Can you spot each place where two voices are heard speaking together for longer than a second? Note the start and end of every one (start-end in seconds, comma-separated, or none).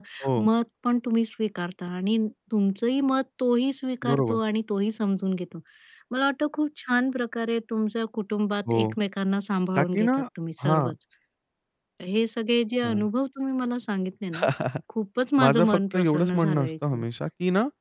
15.4-17.0